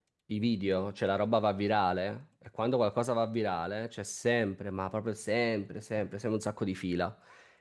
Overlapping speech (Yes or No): No